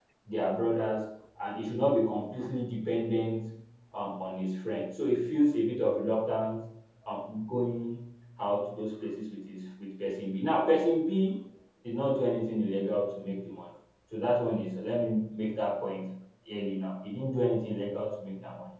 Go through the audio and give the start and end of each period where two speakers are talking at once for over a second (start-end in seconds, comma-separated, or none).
none